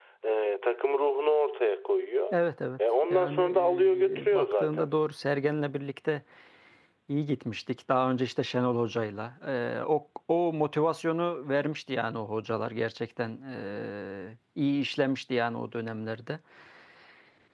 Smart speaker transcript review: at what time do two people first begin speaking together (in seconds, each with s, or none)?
3.0 s